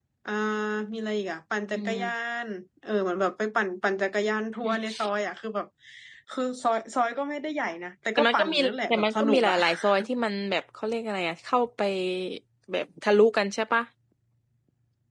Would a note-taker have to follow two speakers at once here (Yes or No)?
Yes